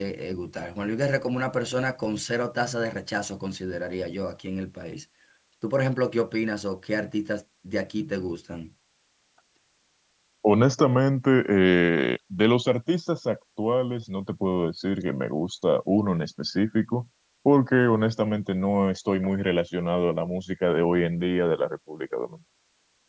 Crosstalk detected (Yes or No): No